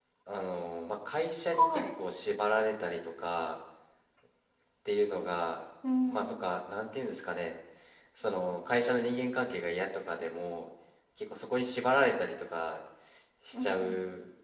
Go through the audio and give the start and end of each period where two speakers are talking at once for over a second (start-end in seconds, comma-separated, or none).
none